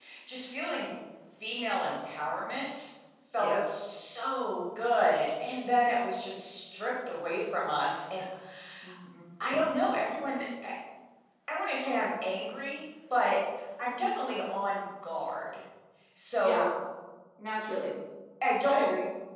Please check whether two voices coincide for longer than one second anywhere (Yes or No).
No